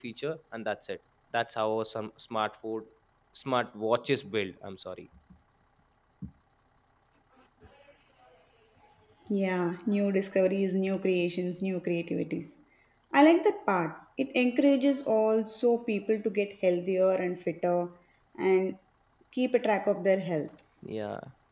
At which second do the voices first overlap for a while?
none

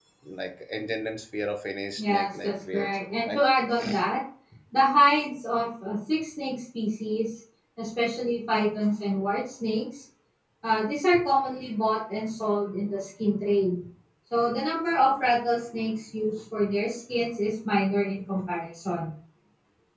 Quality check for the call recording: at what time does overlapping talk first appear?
2.0 s

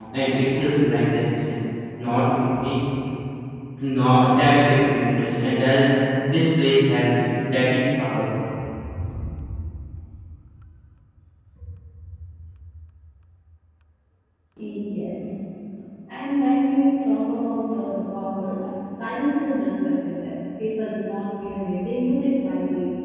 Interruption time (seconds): none

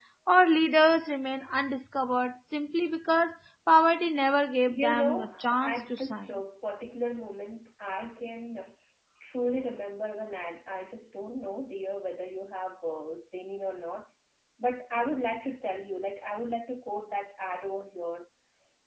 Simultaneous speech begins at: 4.7 s

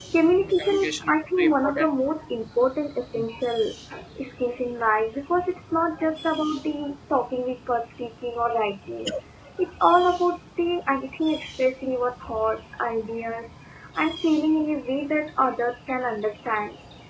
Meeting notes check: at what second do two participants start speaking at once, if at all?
0.6 s

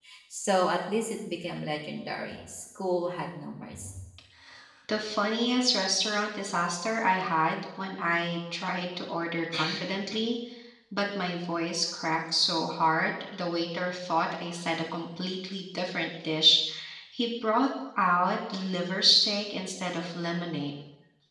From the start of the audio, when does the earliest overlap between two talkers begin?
none

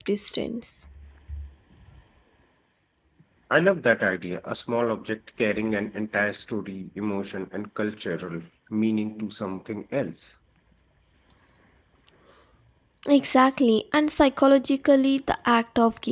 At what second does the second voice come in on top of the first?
none

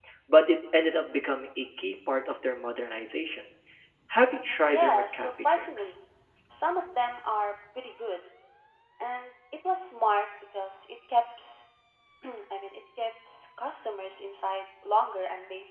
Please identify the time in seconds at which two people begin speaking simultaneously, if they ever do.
4.7 s

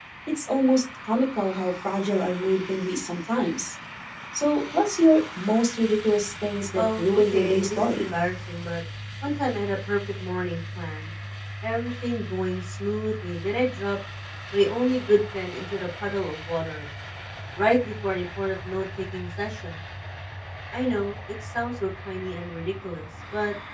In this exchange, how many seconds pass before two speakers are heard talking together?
6.8 s

